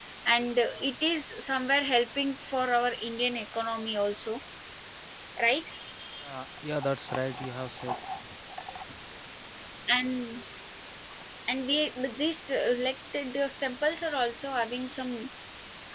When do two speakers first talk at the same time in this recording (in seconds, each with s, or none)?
none